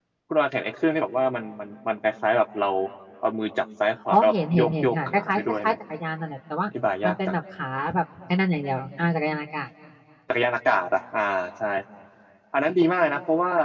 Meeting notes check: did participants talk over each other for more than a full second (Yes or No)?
Yes